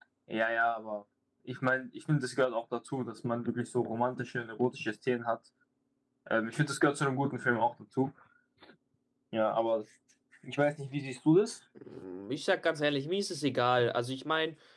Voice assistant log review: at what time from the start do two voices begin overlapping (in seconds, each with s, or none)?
none